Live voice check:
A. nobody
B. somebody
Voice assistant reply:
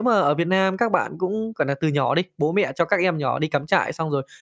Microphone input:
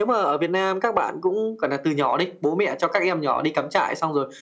A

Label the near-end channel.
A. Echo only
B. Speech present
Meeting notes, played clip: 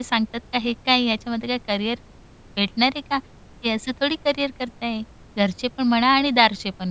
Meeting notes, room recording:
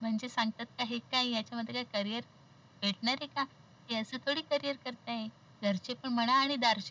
A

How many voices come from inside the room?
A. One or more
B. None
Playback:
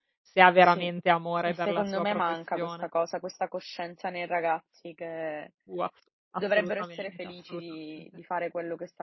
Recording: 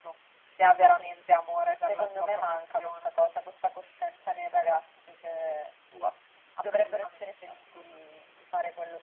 B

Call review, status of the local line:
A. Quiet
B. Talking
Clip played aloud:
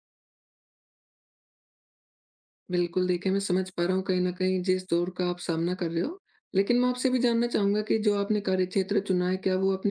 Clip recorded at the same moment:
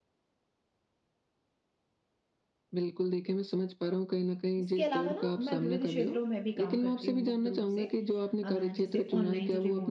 B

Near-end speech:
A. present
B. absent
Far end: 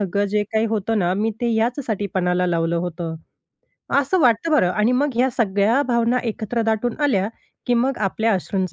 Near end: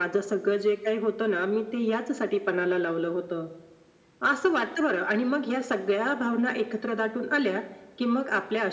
B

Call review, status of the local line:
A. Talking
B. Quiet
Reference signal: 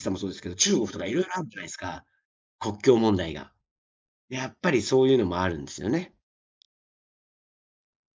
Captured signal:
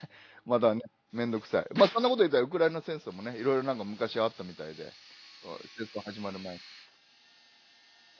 A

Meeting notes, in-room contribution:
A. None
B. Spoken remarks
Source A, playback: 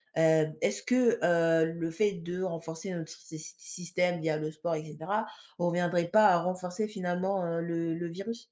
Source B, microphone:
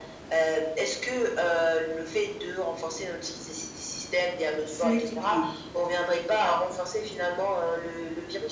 B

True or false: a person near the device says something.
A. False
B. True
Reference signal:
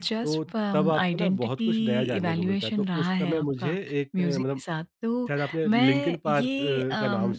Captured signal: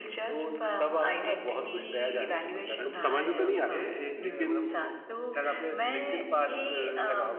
B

